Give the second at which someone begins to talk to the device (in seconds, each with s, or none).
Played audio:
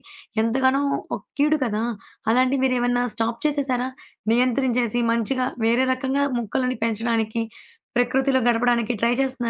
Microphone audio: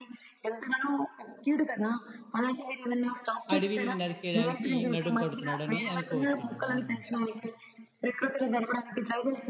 3.5 s